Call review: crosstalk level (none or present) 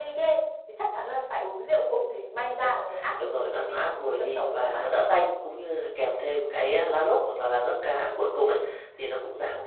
present